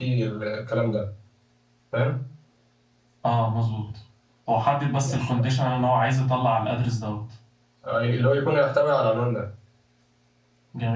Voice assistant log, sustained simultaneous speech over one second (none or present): none